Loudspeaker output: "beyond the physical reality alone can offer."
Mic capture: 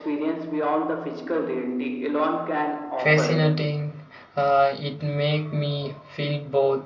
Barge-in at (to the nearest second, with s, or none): 3 s